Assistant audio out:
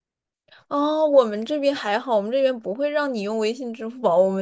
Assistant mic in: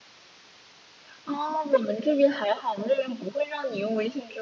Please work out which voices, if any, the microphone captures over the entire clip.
echo only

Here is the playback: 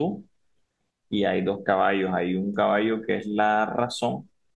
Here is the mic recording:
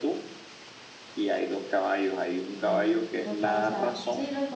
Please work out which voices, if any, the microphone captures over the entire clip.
both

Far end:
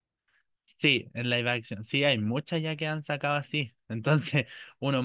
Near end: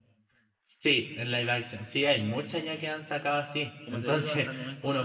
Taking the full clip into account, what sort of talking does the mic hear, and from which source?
both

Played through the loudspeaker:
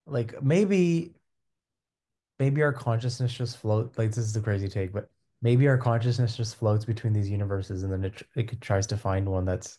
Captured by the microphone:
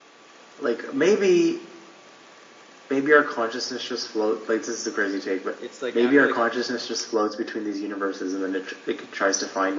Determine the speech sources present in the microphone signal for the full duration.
both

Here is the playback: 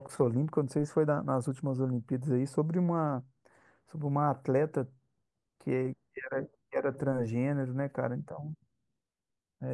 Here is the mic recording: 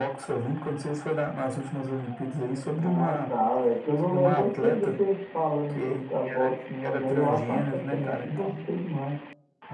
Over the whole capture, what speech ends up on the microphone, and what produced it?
both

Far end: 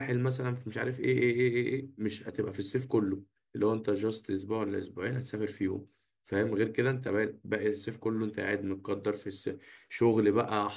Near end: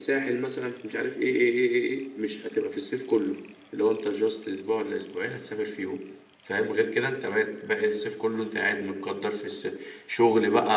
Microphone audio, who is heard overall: echo only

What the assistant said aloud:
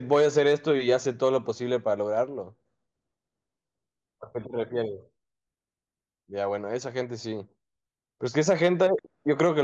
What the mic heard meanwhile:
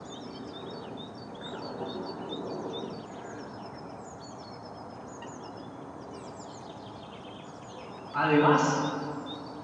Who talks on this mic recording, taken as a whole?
user only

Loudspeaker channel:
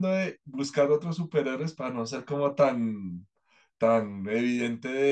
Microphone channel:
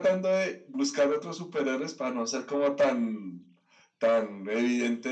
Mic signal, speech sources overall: echo only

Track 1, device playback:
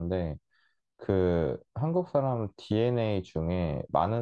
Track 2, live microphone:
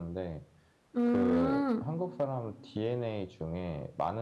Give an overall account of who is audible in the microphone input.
both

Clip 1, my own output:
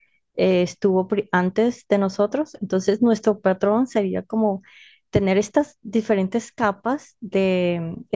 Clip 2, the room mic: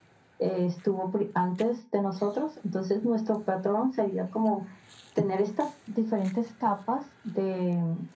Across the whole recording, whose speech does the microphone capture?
echo only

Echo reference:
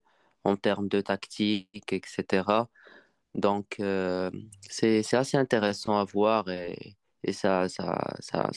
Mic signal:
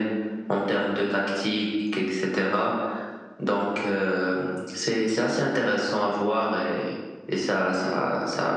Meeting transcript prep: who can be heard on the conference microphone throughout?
echo only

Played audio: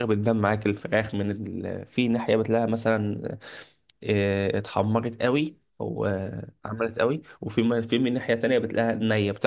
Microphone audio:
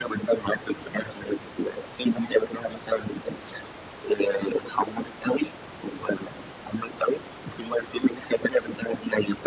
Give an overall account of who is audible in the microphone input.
echo only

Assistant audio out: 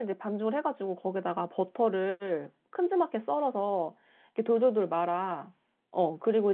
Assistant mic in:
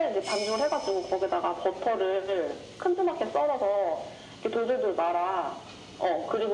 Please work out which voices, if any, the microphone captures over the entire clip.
echo only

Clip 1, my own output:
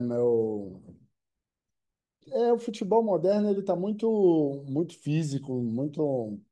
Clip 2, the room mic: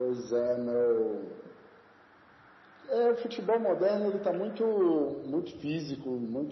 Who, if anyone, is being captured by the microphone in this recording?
echo only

